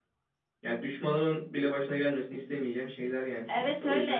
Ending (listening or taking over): taking over